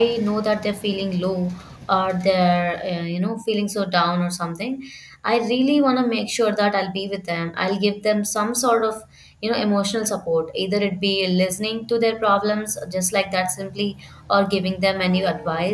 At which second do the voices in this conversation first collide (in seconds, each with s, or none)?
none